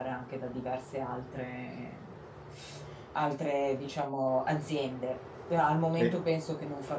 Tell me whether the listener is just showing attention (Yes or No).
Yes